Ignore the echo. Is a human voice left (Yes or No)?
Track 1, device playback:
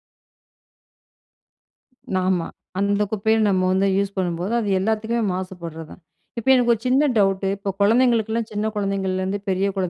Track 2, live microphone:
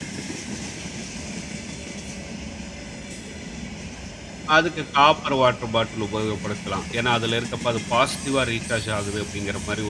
Yes